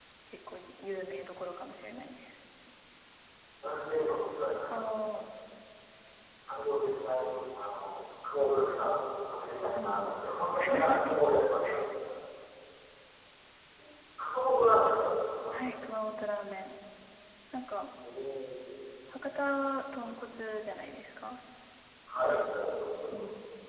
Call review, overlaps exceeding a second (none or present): none